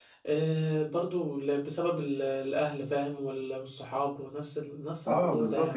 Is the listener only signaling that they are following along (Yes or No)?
No